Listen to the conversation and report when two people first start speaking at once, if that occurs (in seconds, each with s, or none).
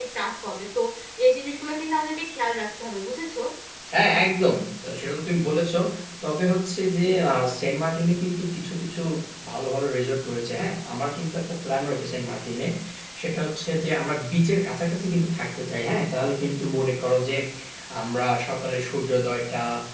none